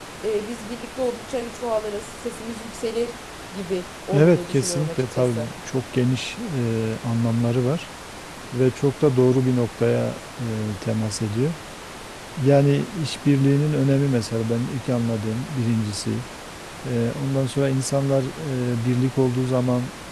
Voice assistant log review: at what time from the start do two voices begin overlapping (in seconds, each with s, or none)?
4.1 s